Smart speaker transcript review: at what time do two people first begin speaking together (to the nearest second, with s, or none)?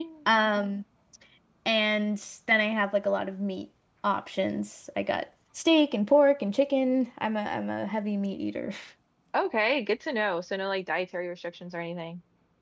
none